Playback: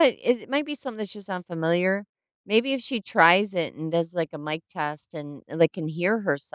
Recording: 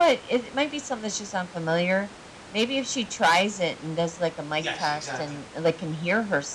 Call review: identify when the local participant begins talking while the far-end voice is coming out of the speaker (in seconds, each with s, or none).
4.6 s